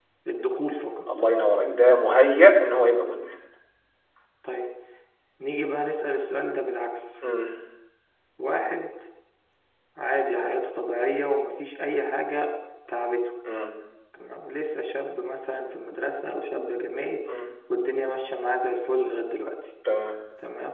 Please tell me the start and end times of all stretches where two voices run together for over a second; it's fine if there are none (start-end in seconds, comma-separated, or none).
none